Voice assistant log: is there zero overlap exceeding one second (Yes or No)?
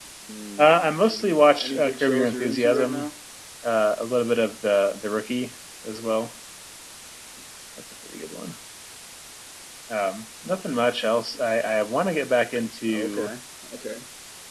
No